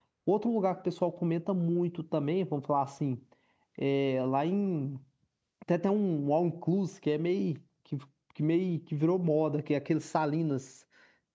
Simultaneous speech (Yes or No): No